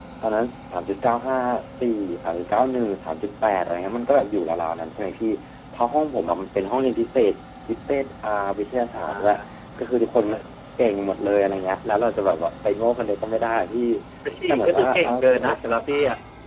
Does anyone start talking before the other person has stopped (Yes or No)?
Yes